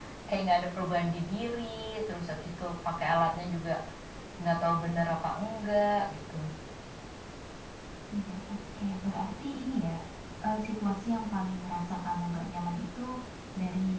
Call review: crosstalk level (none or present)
none